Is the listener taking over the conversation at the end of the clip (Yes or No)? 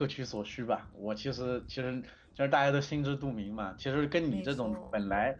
No